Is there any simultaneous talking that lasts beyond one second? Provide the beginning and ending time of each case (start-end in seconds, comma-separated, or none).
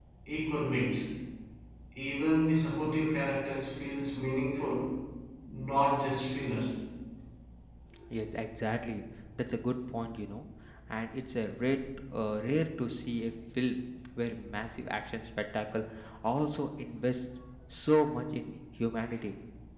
none